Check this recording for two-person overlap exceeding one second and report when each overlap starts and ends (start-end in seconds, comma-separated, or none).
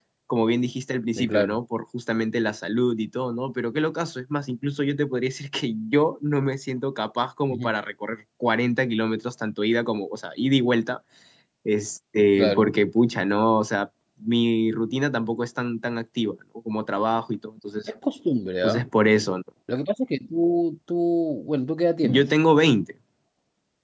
none